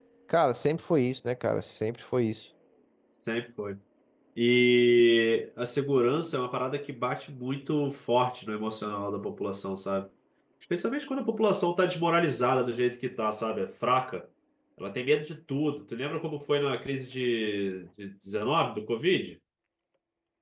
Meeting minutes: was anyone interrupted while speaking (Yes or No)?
No